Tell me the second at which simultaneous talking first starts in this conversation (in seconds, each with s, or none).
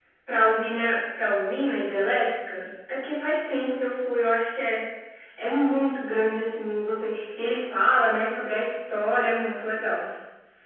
none